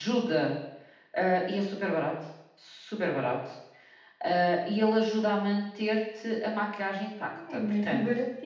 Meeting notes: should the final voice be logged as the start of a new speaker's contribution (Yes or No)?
Yes